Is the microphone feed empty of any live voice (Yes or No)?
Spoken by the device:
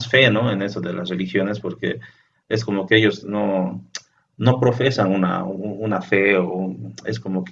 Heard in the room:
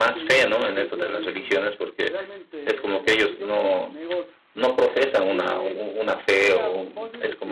No